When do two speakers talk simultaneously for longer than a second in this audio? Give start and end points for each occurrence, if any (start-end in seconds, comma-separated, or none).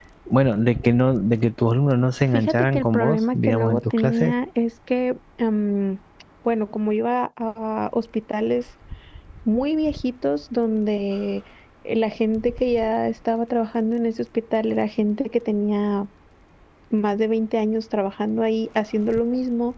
2.3-4.3